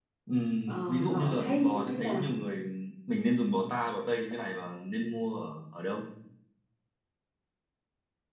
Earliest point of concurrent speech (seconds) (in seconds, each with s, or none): 0.7 s